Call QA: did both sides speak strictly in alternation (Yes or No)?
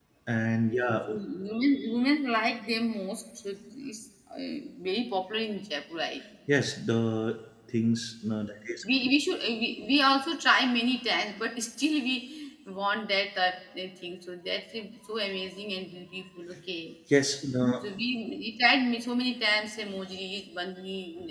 Yes